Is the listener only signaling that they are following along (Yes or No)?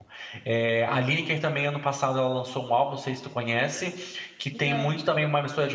Yes